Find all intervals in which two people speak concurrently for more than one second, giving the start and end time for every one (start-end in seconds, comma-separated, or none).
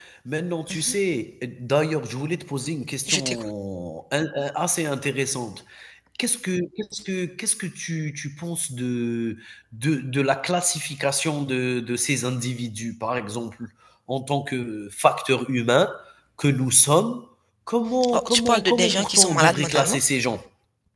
18.1-20.0